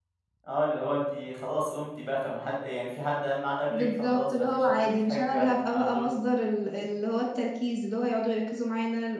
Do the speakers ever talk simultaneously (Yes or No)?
Yes